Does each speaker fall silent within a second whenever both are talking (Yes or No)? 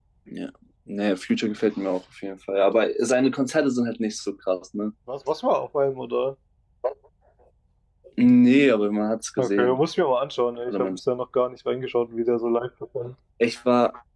Yes